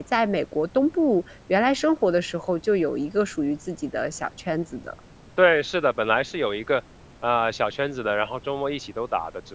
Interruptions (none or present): none